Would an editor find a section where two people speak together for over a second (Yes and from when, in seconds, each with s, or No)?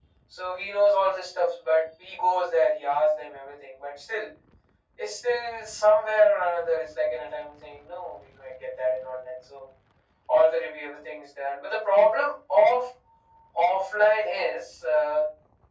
No